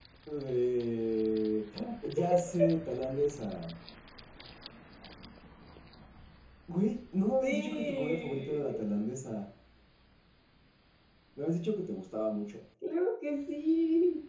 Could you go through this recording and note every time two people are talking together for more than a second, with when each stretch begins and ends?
7.4-8.7

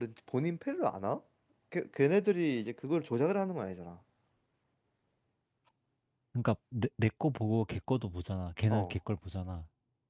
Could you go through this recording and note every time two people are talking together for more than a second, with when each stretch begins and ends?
none

